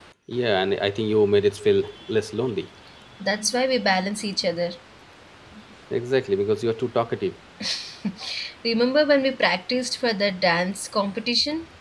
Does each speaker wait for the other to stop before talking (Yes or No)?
Yes